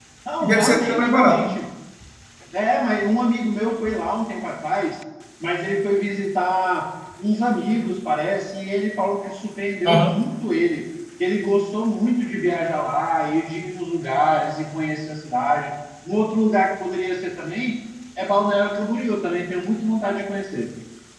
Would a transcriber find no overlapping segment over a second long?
No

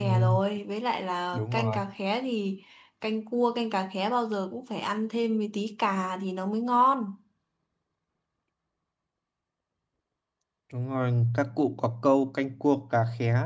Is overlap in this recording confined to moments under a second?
Yes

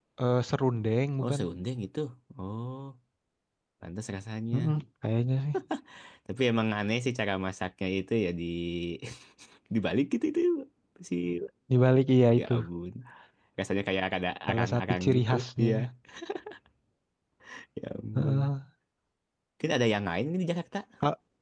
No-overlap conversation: No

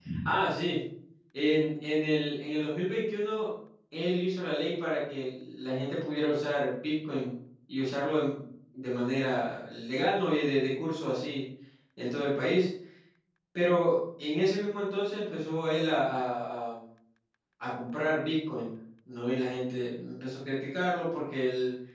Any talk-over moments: No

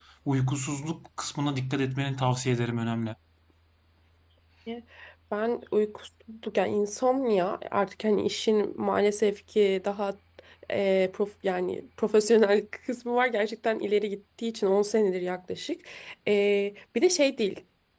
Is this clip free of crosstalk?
Yes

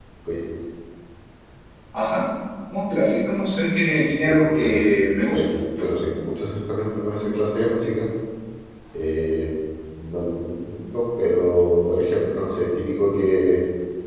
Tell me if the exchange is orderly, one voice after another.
No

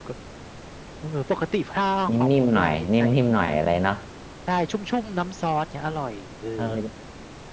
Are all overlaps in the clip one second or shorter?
No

